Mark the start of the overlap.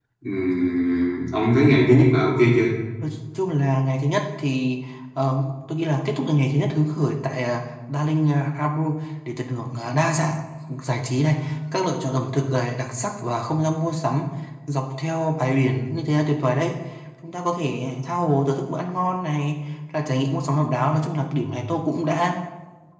none

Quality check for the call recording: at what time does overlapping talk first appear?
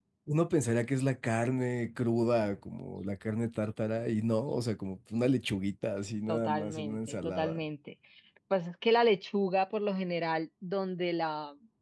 6.3 s

